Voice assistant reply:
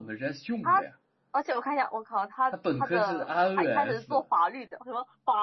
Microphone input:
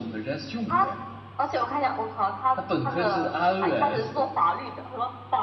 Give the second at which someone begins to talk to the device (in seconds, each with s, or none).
none